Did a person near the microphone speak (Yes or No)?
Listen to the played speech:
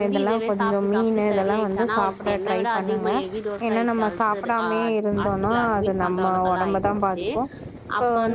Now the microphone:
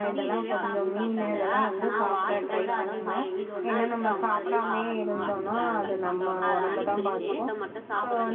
Yes